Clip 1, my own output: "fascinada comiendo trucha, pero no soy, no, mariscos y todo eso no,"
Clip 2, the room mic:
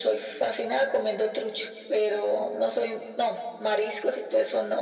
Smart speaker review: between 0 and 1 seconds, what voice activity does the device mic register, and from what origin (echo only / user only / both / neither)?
echo only